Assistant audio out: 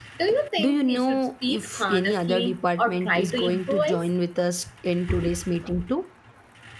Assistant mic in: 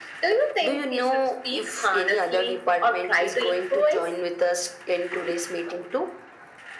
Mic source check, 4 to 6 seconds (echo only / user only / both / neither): echo only